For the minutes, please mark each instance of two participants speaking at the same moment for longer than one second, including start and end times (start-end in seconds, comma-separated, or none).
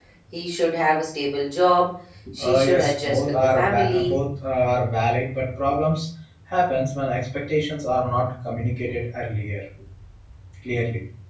2.4-4.2